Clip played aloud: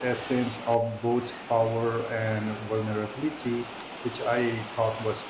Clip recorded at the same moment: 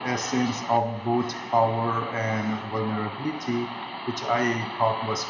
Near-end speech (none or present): none